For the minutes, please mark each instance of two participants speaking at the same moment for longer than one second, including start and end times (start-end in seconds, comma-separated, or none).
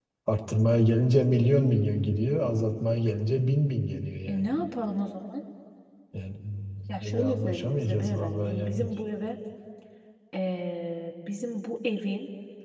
7.0-8.9